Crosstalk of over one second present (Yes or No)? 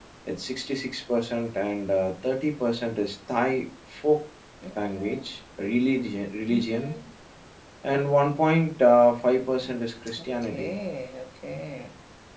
No